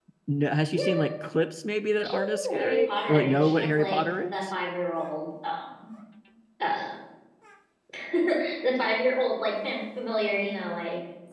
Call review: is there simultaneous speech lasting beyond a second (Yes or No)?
Yes